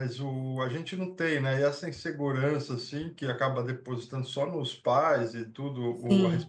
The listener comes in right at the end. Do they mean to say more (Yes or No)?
No